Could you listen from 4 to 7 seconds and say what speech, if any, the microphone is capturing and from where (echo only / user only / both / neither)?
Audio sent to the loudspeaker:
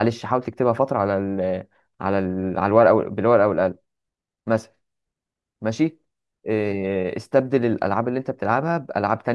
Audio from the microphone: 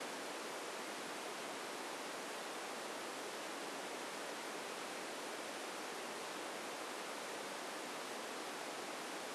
neither